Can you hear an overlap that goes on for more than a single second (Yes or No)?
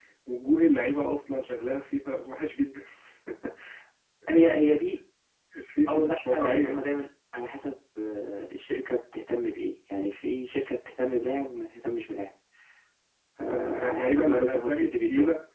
Yes